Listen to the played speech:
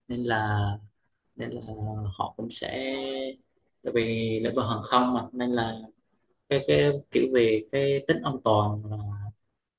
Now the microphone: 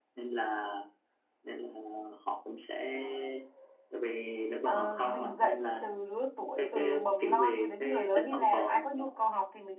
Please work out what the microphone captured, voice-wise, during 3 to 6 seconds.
both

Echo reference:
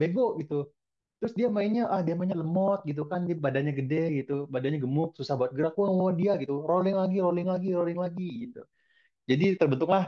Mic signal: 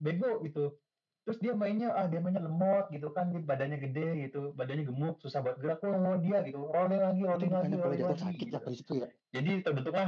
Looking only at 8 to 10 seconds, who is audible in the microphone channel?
both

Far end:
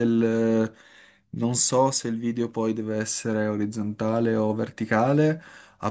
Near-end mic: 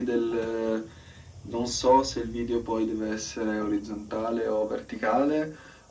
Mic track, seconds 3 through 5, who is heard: echo only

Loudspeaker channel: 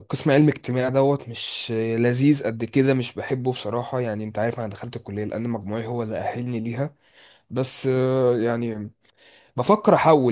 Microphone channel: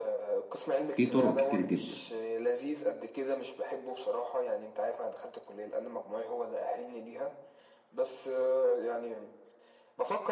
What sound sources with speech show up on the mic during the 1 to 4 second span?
both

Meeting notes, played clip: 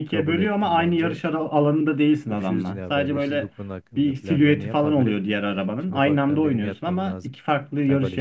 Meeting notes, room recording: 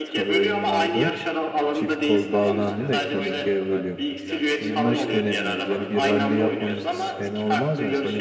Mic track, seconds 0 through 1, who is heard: both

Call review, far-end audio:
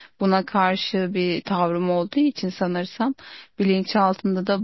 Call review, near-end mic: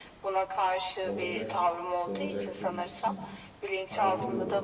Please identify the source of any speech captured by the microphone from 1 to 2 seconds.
both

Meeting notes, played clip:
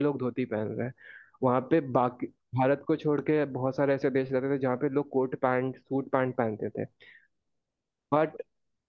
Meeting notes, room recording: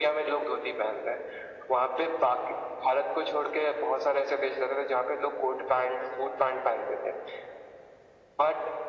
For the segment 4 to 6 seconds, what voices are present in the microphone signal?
echo only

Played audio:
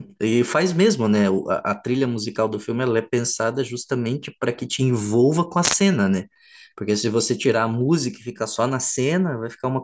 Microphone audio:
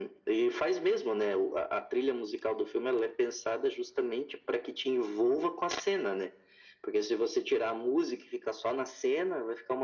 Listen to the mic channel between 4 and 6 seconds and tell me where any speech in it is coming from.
echo only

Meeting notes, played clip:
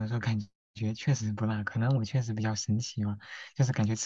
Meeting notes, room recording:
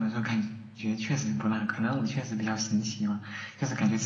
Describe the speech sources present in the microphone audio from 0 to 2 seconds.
echo only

